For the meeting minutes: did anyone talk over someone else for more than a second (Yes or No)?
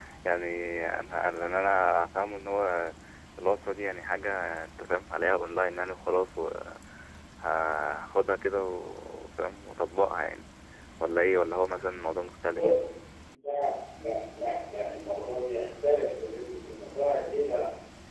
No